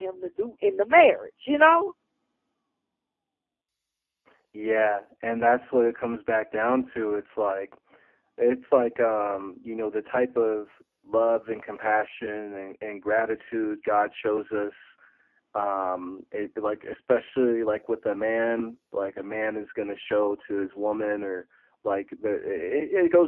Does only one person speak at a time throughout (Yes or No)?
Yes